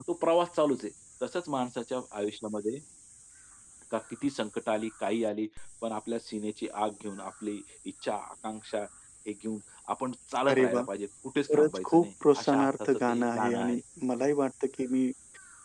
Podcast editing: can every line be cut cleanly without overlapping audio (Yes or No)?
No